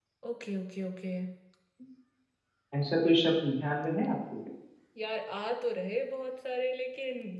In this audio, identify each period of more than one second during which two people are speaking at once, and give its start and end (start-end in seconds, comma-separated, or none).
none